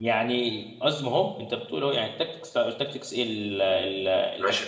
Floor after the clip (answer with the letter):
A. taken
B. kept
A